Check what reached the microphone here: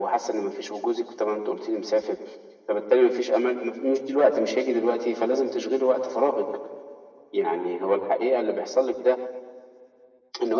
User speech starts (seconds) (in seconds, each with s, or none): none